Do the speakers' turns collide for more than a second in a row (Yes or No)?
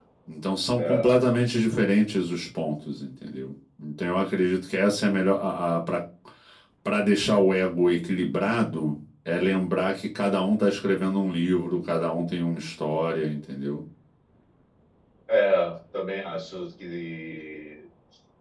No